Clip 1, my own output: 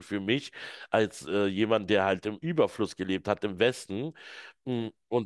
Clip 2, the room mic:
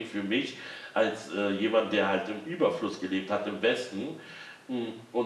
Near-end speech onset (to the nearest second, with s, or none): none